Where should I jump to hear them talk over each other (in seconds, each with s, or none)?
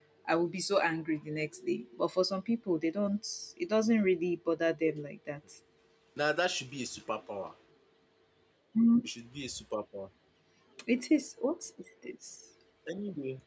none